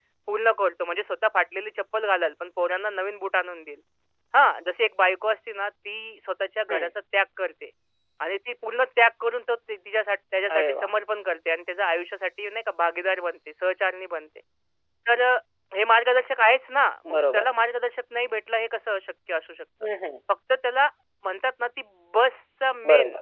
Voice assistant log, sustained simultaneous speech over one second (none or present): none